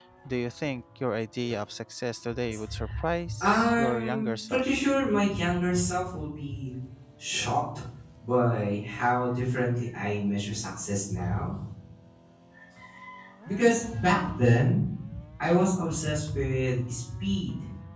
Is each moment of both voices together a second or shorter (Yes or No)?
No